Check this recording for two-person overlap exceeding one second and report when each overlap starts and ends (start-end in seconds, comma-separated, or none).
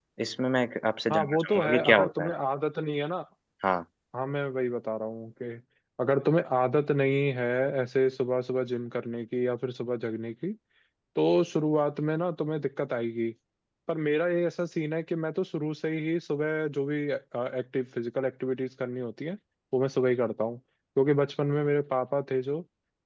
1.1-2.3